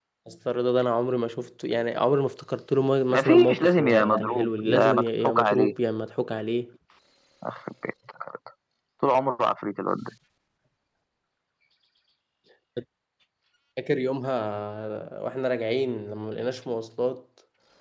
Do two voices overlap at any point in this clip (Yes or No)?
Yes